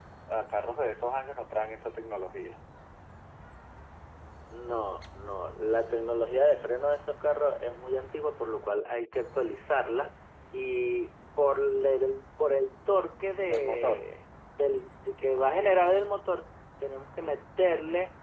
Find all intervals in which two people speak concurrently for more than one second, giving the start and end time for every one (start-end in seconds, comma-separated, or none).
none